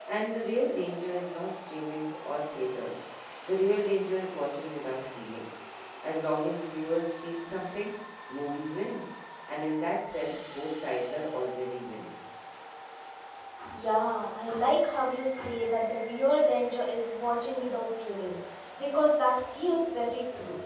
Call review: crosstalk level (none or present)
none